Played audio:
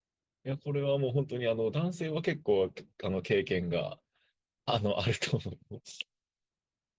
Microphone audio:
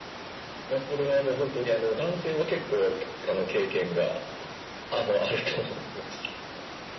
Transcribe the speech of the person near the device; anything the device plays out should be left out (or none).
none